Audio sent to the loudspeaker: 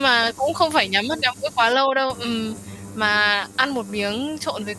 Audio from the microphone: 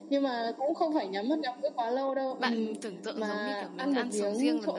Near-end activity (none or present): present